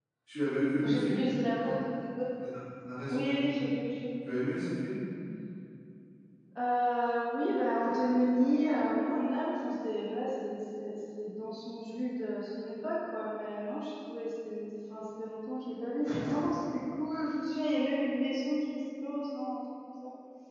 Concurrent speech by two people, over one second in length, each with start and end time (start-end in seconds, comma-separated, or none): none